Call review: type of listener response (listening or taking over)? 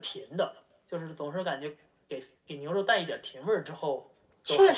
taking over